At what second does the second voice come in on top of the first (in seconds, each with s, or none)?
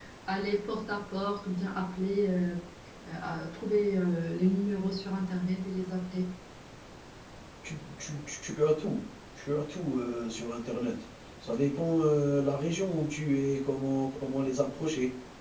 none